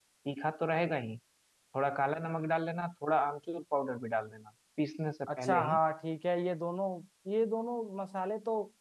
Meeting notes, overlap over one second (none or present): none